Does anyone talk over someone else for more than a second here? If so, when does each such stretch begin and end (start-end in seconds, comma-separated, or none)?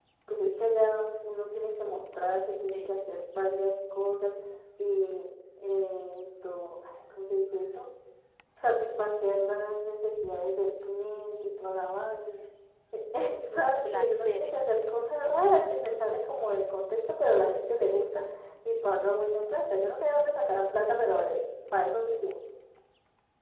13.5-14.8